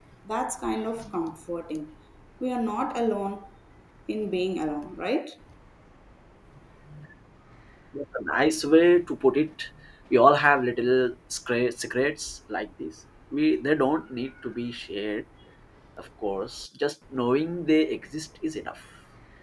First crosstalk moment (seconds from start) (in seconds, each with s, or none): none